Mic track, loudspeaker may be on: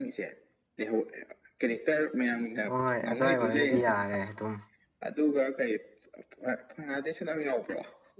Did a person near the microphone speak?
Yes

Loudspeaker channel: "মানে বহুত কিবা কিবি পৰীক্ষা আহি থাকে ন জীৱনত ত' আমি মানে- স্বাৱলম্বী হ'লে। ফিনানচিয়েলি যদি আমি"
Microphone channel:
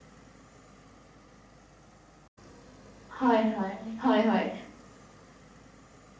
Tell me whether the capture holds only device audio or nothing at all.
No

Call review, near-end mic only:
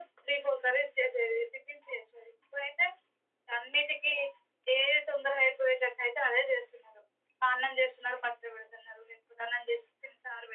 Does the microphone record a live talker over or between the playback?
No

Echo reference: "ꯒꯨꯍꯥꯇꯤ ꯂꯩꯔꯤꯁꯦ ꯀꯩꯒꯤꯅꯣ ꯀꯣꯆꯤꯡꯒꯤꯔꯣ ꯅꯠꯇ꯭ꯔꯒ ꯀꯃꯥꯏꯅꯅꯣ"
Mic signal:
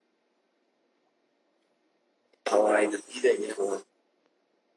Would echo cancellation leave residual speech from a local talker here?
Yes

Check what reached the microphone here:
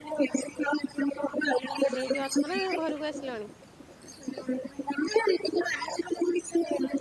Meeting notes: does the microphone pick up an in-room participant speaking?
Yes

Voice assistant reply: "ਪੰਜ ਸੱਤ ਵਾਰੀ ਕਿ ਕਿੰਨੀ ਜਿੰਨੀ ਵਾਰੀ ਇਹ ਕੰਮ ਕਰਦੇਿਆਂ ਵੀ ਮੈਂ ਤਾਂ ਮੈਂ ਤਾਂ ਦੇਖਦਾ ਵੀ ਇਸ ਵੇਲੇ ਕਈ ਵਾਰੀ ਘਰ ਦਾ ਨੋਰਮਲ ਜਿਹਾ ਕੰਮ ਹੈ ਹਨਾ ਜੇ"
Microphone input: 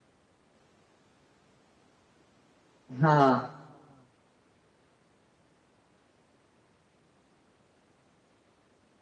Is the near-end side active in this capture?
Yes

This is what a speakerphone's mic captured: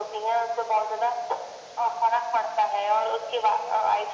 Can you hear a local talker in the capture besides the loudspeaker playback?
No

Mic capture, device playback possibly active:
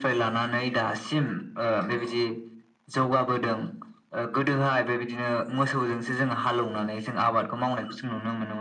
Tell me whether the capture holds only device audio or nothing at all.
Yes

